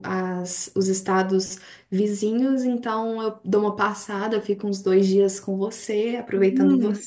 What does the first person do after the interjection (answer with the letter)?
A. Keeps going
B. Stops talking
B